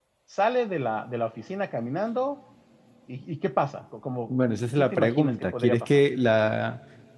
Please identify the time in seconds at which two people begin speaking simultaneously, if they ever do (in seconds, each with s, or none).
4.3 s